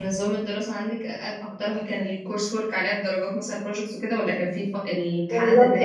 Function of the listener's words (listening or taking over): taking over